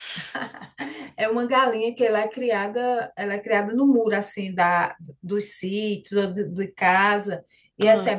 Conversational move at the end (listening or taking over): listening